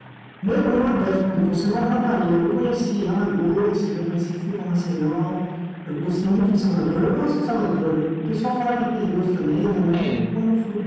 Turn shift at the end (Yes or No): No